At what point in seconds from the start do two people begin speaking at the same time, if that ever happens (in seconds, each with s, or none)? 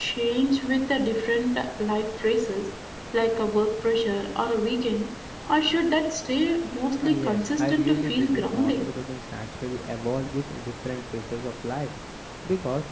7.0 s